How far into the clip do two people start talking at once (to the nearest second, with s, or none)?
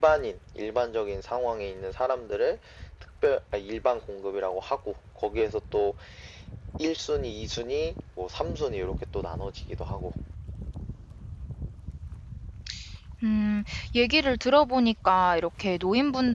none